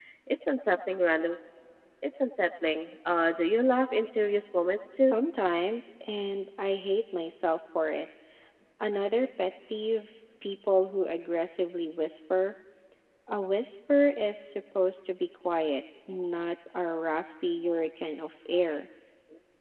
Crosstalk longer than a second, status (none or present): none